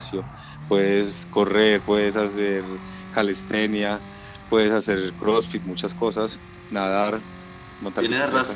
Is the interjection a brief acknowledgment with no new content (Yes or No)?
No